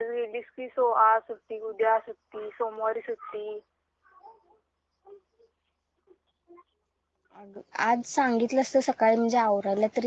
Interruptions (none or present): none